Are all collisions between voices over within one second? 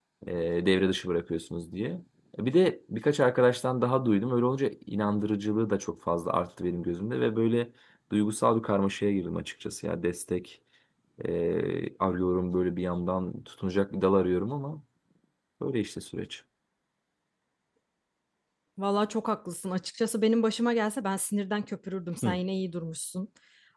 Yes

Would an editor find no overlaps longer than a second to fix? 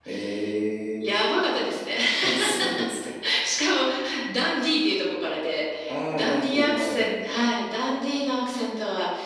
No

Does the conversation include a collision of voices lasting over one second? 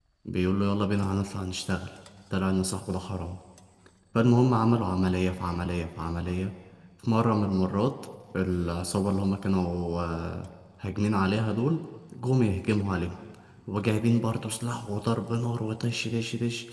No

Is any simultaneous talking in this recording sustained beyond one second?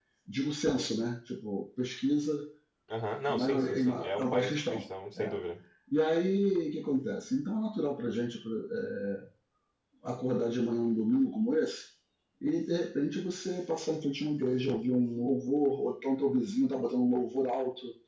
Yes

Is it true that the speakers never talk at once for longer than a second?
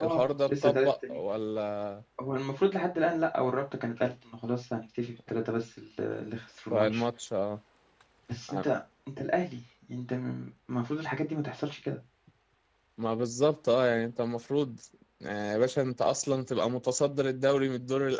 No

